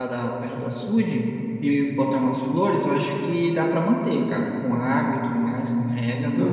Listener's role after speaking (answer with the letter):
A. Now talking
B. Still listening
A